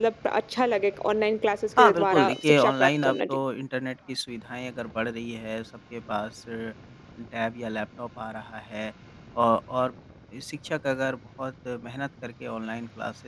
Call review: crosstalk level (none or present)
present